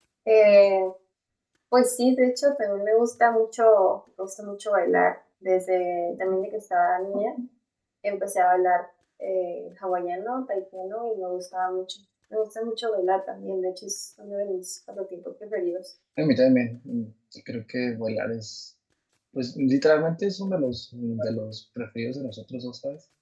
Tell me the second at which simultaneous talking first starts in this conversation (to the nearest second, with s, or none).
none